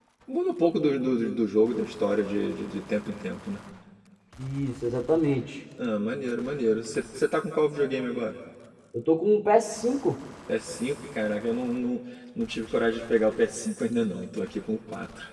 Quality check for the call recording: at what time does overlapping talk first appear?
none

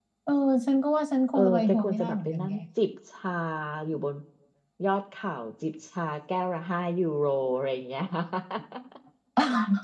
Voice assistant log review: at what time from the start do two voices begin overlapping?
1.3 s

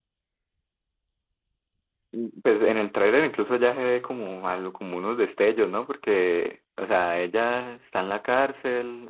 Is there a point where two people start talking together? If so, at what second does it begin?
none

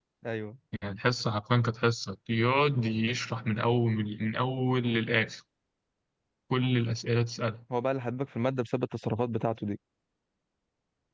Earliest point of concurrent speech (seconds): none

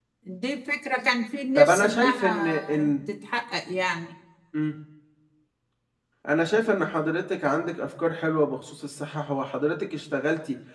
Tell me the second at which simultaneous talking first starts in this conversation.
1.6 s

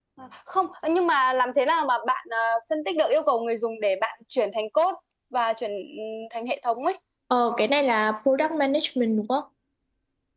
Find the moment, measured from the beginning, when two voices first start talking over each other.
none

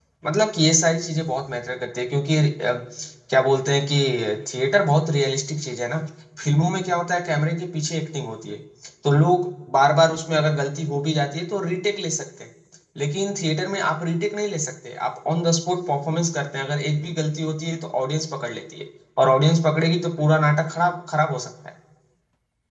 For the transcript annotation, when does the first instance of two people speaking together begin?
none

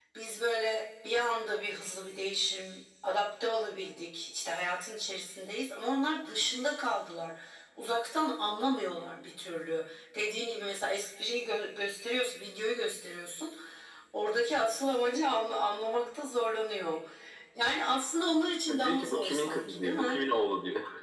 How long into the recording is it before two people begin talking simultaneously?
18.7 s

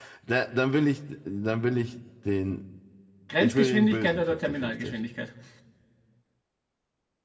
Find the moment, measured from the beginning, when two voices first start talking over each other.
3.4 s

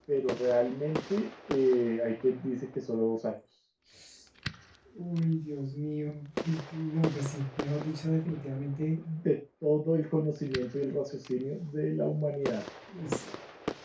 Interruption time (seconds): none

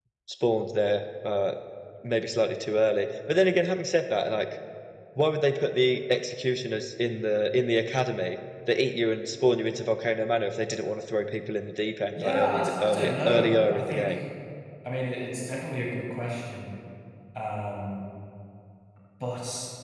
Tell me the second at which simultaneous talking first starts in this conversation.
12.1 s

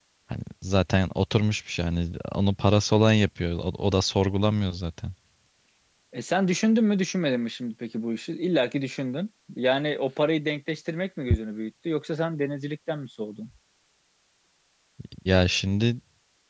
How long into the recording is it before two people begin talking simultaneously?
none

